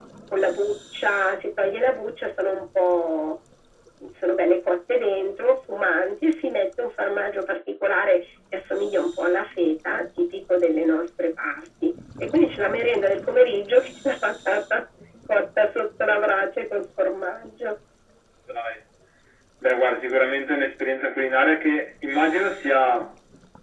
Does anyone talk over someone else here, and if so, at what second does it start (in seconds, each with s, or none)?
none